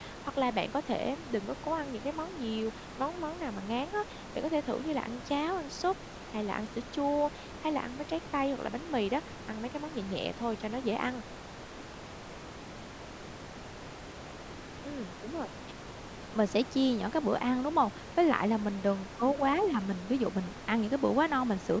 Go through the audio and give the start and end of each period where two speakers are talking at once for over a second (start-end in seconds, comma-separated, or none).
none